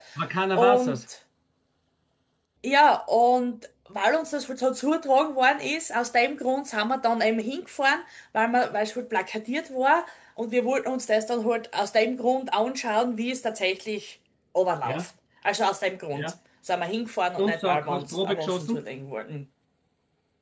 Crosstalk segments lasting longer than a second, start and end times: 17.4-18.8

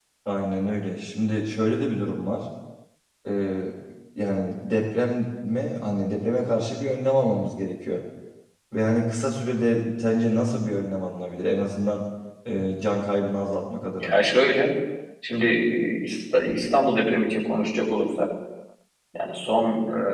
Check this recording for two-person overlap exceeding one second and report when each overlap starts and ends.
none

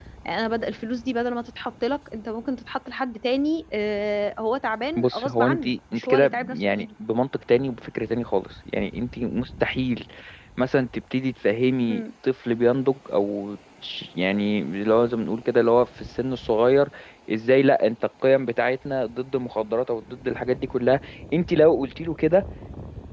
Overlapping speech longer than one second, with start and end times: 5.0-6.8

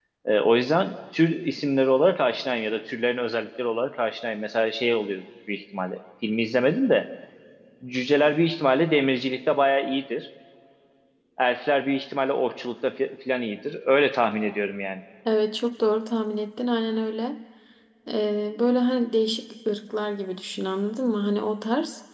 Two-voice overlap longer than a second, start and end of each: none

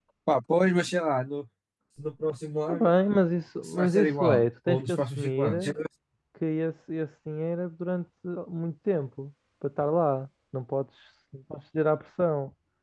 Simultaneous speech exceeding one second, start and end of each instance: 3.6-5.5

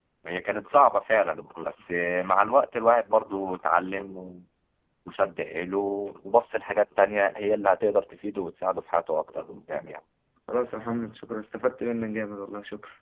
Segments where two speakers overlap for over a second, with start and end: none

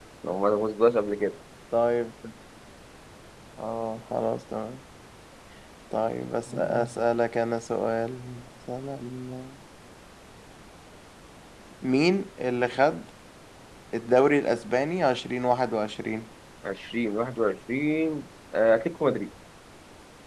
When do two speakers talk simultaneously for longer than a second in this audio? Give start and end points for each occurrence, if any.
none

